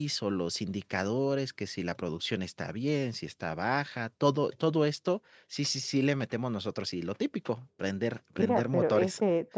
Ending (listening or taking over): taking over